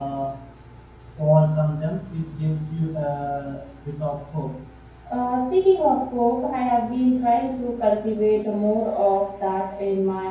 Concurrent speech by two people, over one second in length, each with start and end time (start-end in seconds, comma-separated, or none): none